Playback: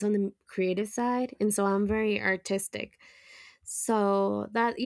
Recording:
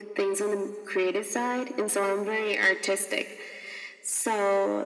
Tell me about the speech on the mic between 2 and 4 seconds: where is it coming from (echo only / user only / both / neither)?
echo only